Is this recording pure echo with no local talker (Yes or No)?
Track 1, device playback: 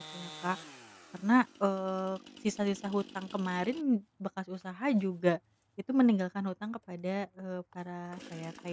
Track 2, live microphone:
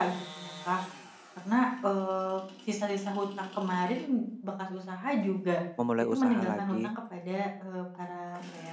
No